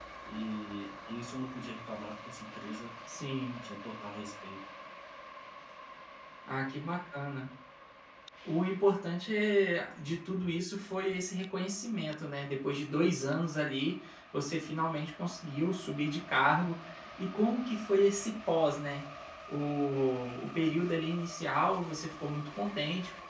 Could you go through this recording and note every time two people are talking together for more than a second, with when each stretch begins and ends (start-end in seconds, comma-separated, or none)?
none